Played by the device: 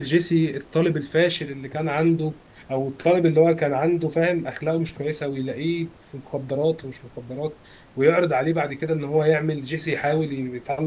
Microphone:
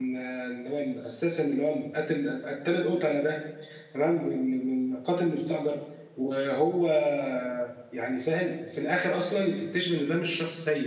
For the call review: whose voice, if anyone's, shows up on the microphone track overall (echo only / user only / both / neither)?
user only